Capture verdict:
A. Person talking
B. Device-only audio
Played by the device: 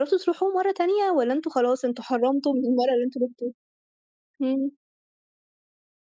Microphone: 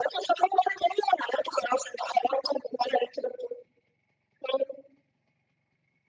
B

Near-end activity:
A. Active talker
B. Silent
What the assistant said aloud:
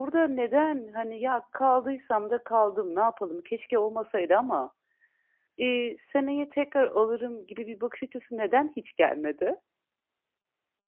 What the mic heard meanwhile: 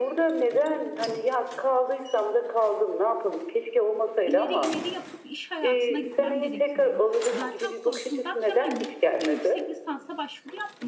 A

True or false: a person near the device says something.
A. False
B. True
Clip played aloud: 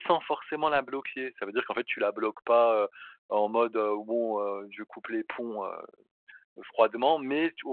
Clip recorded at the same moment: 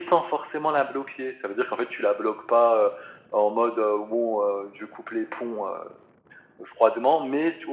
A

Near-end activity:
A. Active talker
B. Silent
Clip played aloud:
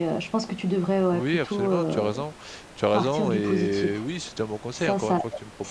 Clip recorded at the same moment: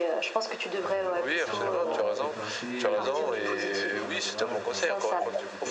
A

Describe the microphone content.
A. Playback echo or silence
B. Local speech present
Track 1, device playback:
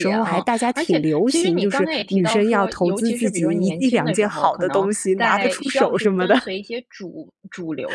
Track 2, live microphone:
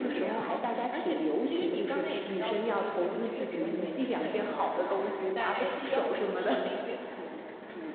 A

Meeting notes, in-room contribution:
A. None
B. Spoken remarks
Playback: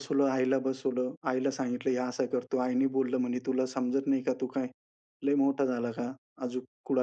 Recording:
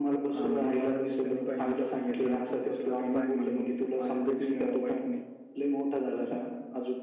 B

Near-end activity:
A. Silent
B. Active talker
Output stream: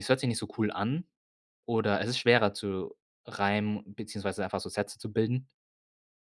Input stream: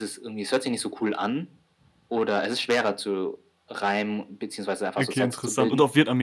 B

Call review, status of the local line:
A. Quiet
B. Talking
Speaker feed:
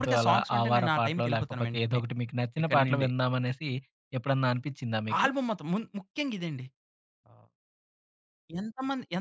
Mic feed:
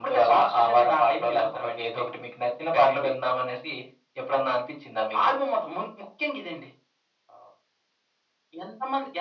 A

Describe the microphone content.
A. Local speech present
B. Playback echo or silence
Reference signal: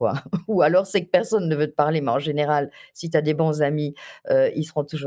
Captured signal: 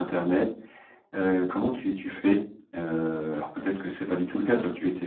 A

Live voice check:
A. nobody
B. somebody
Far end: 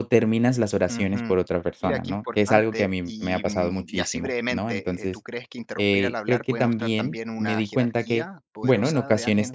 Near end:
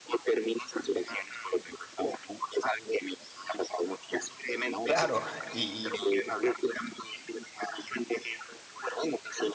B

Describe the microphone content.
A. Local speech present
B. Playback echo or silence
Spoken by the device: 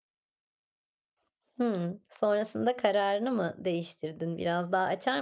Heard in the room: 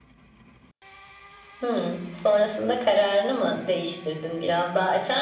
B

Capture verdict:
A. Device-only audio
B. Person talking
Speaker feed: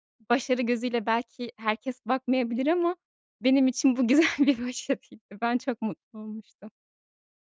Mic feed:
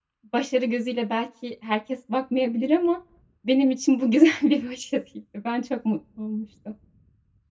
A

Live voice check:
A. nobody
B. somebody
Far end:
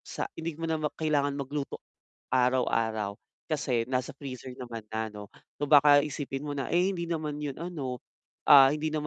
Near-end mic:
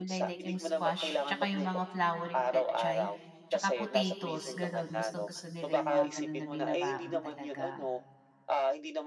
B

